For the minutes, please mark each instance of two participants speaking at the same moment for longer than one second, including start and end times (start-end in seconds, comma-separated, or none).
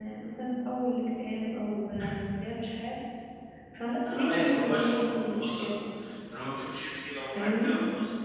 4.0-5.8